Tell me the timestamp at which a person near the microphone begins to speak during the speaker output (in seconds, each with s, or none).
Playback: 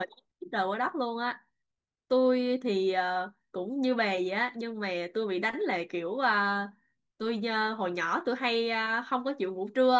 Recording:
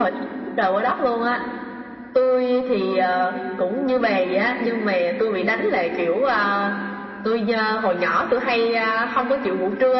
none